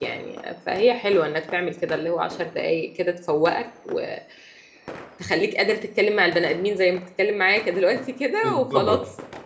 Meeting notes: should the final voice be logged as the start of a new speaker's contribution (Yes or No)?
Yes